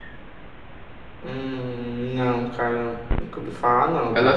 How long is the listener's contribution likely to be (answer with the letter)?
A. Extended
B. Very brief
A